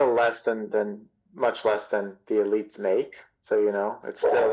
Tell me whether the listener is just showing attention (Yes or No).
Yes